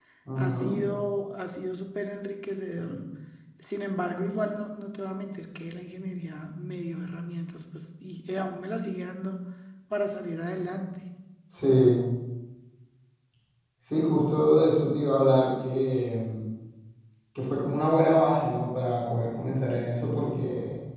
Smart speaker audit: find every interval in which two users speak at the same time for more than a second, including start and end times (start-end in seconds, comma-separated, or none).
none